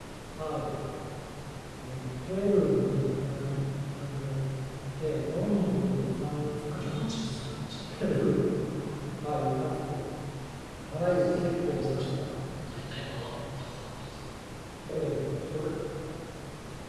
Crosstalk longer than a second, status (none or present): present